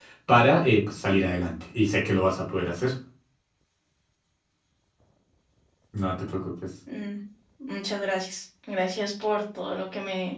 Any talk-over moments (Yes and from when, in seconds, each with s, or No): No